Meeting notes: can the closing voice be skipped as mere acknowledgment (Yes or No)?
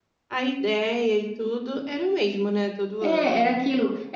No